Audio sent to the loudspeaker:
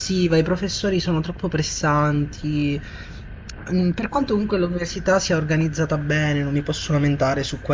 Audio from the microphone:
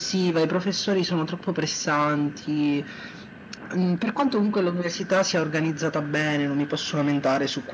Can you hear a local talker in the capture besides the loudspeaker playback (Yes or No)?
No